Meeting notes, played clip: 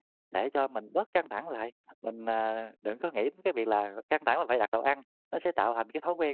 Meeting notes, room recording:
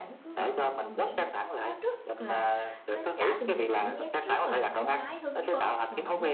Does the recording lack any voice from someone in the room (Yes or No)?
No